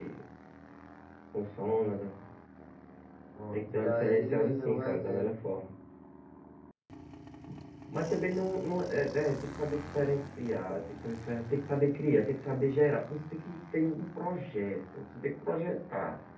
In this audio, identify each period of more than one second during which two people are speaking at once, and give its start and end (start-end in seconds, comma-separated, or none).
3.5-5.3